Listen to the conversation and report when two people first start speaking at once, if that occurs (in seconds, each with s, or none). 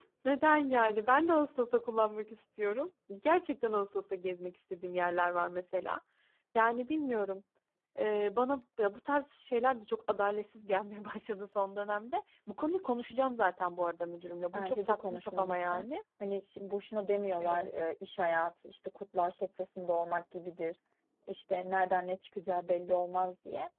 14.5 s